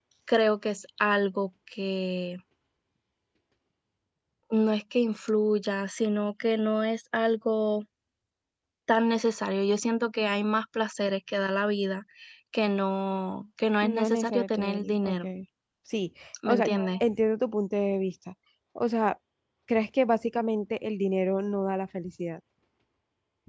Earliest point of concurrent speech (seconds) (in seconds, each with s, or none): 13.8 s